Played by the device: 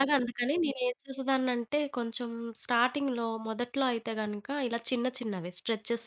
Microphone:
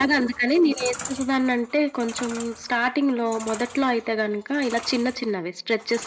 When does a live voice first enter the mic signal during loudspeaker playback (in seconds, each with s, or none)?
none